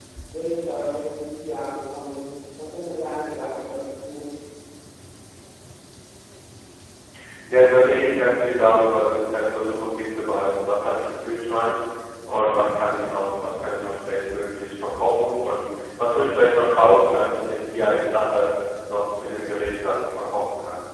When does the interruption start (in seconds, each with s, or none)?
none